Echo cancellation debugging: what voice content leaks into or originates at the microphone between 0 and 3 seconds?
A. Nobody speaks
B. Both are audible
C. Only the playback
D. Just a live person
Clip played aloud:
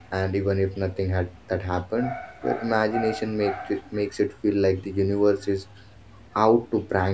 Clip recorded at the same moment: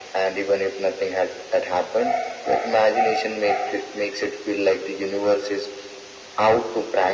C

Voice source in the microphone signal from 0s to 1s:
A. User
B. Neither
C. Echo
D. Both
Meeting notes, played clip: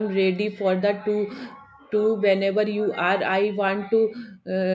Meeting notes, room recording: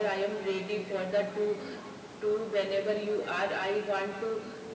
C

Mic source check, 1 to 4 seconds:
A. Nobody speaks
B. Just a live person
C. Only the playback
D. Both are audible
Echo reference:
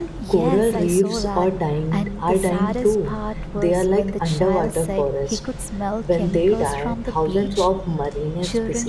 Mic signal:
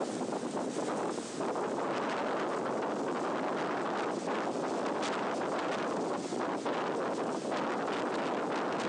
A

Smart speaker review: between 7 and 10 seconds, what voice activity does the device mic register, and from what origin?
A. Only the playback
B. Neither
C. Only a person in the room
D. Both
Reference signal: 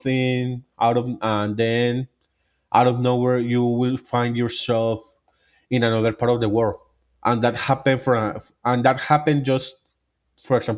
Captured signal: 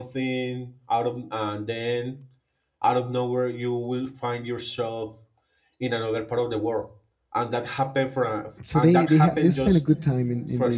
D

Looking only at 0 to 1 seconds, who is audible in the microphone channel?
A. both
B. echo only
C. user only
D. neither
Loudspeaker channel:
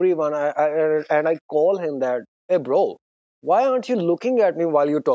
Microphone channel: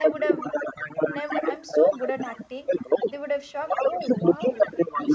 A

